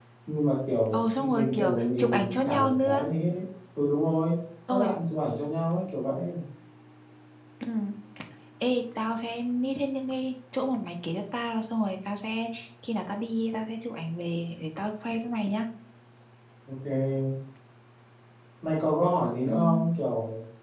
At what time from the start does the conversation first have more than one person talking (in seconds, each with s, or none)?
0.9 s